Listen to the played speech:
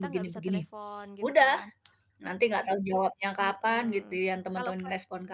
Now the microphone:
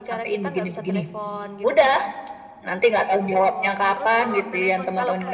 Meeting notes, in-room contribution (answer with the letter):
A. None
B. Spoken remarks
B